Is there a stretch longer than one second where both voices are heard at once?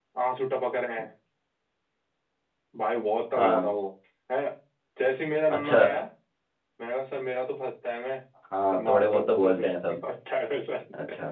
Yes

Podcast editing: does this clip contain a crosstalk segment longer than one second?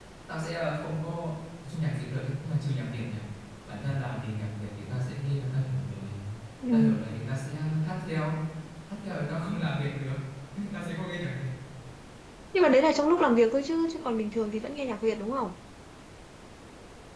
No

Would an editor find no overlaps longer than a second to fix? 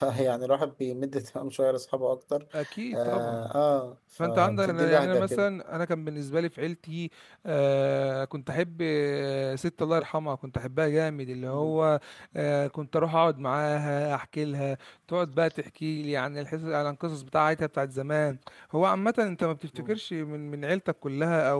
No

